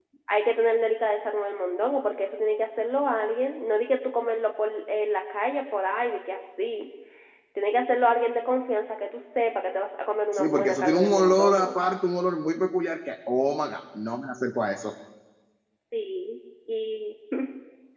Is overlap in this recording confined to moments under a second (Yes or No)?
No